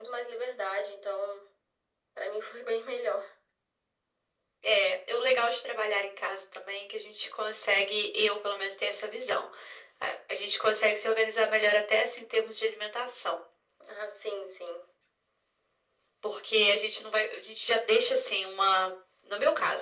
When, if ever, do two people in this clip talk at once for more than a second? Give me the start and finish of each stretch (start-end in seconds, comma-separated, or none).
none